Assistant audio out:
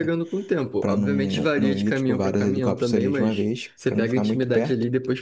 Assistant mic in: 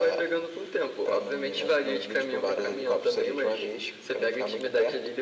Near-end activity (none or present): none